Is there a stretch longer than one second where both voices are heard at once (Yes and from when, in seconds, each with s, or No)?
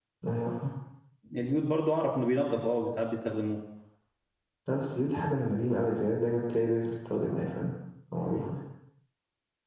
No